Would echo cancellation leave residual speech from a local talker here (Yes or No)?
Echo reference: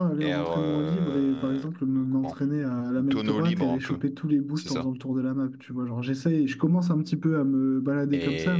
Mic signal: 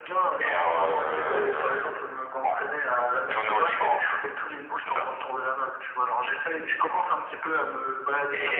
No